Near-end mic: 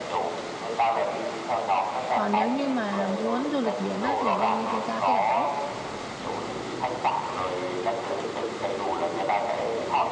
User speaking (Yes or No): Yes